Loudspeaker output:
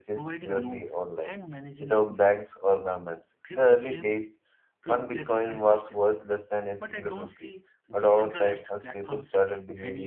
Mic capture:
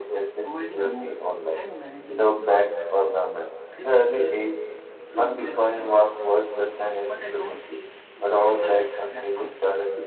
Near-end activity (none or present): none